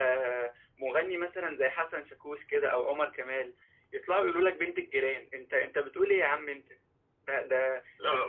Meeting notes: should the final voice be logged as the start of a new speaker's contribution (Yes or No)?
No